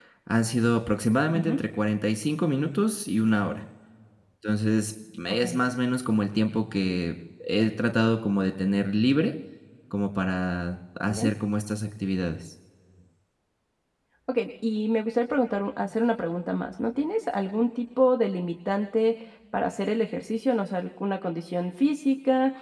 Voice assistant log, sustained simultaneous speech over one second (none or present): none